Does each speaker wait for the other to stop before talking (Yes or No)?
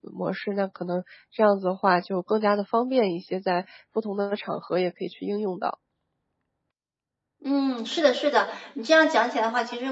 Yes